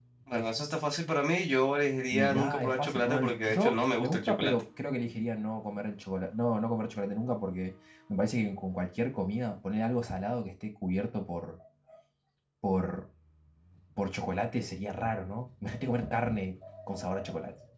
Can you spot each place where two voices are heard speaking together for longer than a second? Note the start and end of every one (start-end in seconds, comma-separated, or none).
2.1-4.5